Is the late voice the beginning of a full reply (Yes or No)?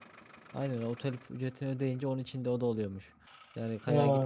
No